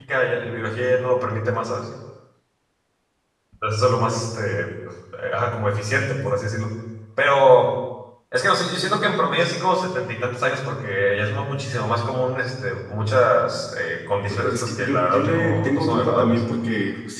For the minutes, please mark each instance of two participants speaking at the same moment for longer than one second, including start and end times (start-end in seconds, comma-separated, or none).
14.3-16.4